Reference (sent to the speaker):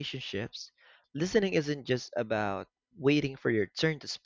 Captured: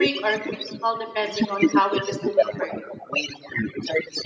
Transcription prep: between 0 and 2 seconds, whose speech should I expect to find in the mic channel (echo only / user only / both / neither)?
both